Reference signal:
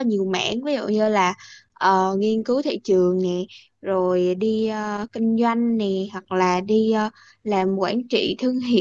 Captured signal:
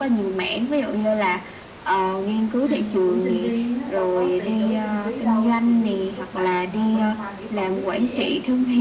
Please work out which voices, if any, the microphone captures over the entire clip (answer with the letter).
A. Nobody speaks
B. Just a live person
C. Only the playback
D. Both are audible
D